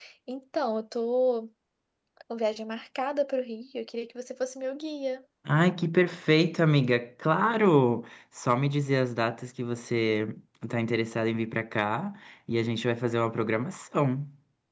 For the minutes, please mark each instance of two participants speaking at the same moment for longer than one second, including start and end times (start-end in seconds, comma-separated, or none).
none